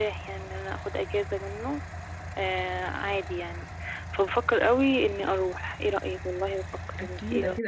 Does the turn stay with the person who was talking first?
No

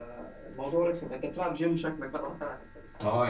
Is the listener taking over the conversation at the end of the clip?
Yes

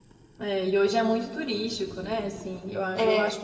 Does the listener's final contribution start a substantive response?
No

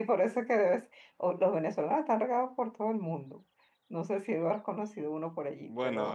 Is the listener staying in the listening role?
No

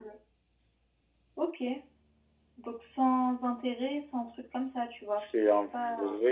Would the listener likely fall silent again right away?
No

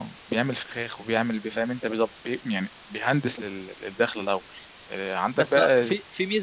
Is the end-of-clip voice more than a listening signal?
Yes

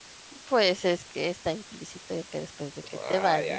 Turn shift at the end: Yes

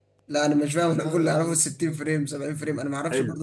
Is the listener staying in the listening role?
No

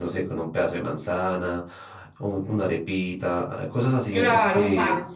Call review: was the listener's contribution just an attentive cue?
No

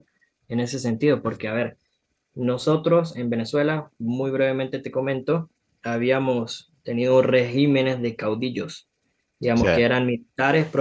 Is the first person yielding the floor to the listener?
No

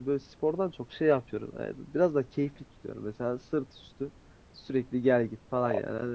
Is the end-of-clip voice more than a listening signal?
No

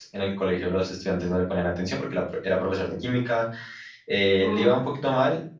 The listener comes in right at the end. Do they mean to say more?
No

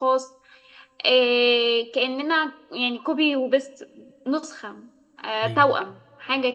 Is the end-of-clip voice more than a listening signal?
No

